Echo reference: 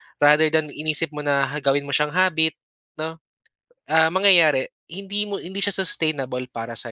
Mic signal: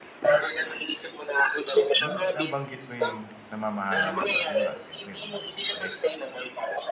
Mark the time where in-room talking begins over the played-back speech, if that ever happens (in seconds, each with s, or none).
1.8 s